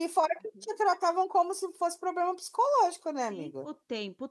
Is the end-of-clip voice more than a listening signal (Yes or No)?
Yes